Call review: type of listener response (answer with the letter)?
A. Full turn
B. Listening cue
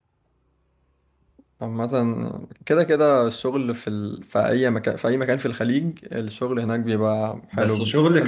A